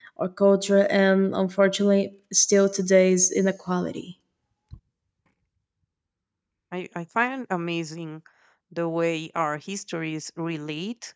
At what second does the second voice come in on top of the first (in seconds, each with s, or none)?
none